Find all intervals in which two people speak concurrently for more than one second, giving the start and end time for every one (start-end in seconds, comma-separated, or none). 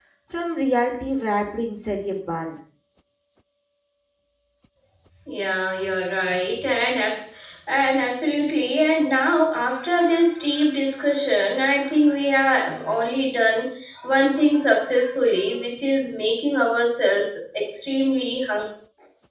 none